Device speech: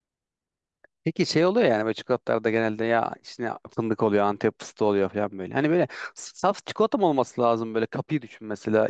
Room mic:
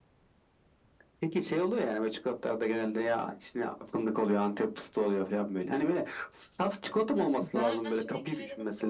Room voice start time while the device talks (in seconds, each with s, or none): 7.4 s